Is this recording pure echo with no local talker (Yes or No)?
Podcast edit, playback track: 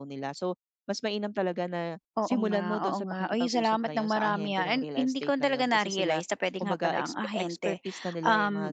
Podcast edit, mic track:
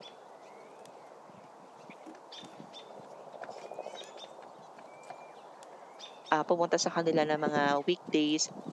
No